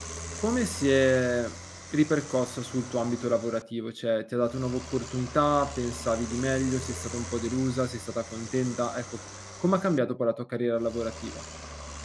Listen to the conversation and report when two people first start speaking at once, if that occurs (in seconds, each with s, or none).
none